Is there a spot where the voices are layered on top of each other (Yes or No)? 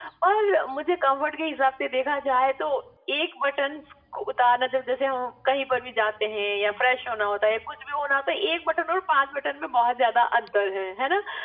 No